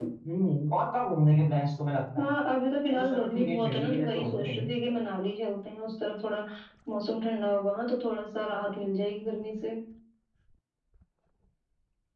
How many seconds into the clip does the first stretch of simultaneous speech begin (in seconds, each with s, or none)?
2.9 s